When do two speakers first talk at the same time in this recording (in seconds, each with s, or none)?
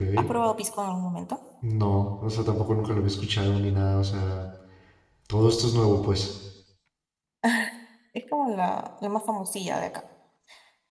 none